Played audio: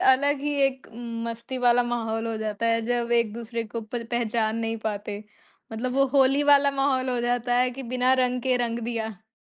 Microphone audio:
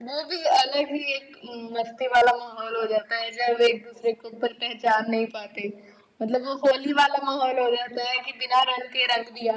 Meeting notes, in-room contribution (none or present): none